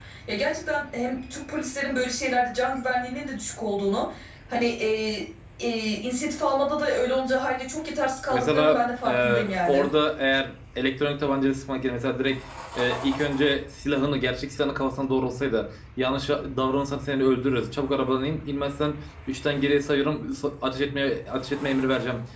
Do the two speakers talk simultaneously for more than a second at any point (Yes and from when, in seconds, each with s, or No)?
Yes, from 8.3 s